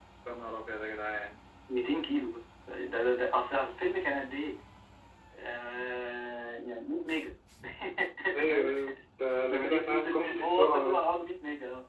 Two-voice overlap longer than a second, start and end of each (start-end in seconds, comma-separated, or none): 9.5-11.1